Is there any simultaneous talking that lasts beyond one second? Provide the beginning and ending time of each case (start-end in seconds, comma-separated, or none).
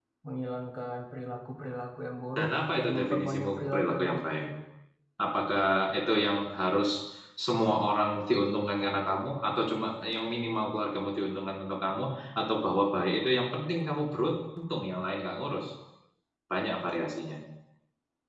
2.4-4.4